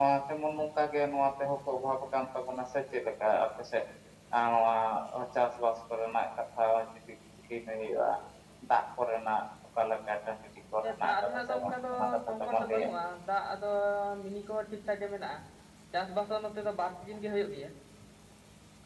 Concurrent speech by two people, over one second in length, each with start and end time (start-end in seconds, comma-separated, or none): 11.0-12.9